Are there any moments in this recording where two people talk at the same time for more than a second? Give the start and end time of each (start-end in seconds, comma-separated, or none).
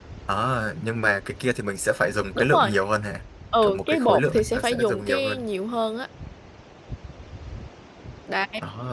3.6-5.4